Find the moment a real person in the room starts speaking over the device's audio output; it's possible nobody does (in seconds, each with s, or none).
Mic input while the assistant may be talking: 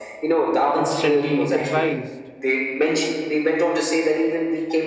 0.8 s